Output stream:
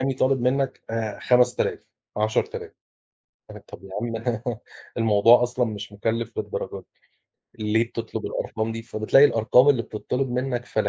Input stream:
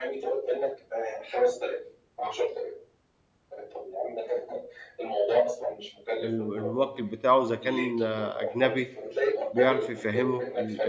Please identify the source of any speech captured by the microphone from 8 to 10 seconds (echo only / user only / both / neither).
both